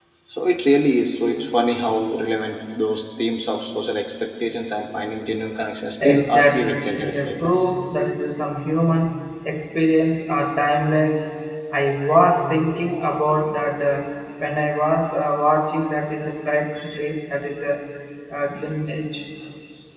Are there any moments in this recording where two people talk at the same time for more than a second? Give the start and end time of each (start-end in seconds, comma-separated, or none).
6.0-7.5